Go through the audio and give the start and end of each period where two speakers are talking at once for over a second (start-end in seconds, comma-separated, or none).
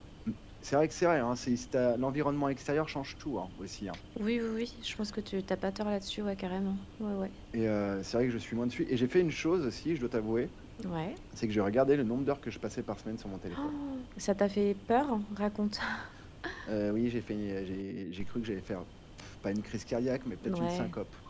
none